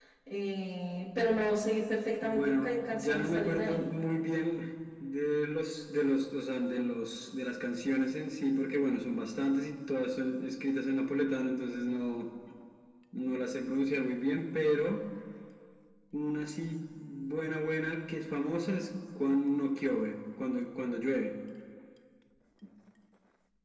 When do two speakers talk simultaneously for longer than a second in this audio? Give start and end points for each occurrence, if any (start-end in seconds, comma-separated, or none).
2.2-3.9